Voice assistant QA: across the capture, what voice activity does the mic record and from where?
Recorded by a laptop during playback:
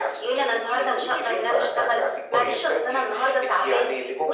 echo only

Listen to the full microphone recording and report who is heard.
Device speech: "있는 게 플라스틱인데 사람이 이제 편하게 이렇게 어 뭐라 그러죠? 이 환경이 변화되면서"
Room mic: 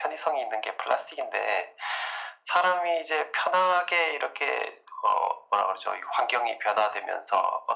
echo only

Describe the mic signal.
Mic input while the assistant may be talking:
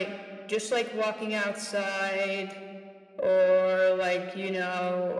echo only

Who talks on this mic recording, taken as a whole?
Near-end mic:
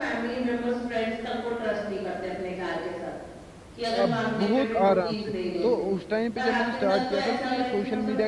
both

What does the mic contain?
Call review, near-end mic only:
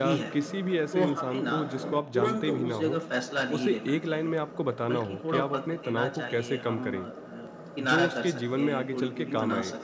both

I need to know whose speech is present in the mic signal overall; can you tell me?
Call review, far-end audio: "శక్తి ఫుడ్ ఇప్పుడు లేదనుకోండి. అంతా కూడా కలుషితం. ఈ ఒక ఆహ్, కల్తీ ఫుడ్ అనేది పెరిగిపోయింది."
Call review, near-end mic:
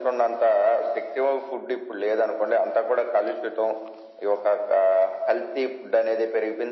echo only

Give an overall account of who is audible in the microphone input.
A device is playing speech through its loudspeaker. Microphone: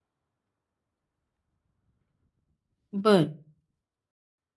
user only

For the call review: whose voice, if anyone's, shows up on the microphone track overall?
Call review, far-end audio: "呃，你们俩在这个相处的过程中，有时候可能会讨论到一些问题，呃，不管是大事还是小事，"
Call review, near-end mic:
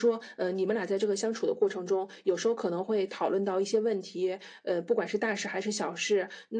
echo only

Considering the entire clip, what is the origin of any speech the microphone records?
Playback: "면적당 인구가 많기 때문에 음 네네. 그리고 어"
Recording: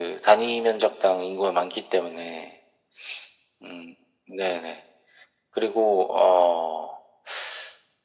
echo only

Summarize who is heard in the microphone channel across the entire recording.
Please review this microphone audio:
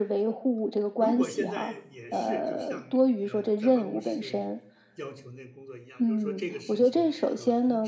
both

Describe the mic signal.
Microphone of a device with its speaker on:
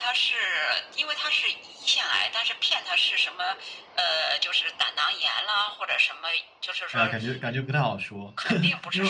both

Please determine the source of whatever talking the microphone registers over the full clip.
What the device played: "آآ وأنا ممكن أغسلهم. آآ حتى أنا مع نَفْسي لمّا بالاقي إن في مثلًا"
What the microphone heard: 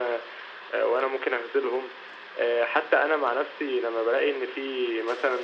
echo only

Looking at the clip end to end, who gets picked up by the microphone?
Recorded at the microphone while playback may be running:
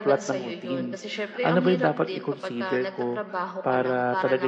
both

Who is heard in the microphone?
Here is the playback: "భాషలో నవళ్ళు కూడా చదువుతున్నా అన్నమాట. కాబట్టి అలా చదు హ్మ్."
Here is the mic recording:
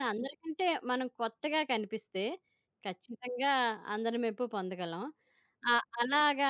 user only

